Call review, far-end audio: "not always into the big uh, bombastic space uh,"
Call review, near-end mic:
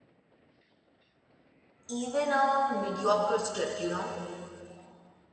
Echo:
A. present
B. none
B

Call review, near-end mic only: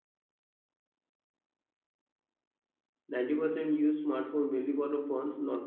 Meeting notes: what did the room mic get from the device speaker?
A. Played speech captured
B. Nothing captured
B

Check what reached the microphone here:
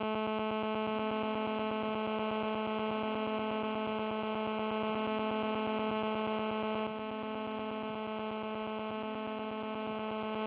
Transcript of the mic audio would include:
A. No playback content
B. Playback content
A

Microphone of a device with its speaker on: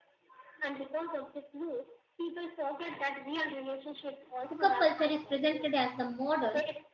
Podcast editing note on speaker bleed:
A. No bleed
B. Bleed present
B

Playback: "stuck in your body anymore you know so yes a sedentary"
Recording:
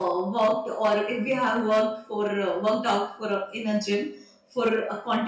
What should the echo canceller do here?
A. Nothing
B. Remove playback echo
A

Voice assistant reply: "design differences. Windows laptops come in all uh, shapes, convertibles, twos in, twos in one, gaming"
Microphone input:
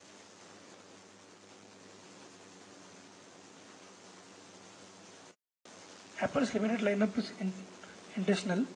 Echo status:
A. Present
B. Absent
B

